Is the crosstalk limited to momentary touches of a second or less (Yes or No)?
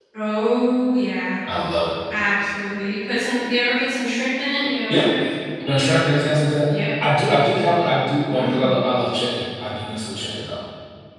Yes